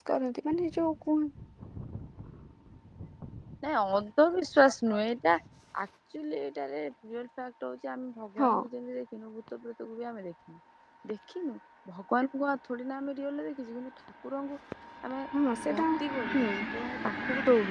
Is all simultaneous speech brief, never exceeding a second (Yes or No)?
Yes